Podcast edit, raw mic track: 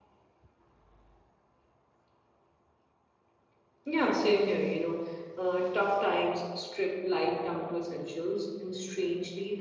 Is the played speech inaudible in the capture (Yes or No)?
Yes